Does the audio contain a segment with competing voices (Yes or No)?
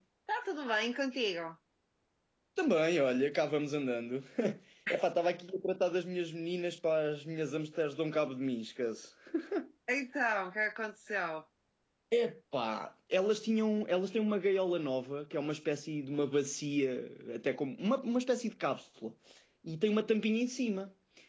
No